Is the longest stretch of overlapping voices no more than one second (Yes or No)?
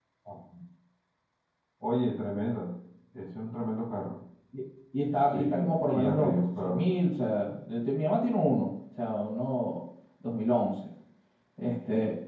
No